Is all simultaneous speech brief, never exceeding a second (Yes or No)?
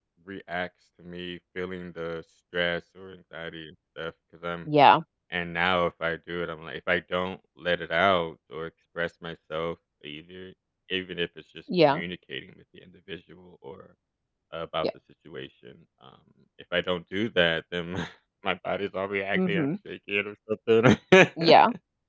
Yes